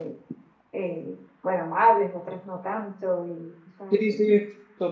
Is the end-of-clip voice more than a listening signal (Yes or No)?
Yes